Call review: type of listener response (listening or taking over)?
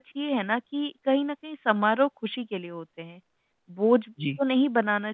listening